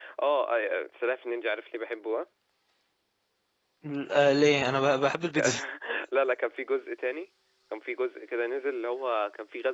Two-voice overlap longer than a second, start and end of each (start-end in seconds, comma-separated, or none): none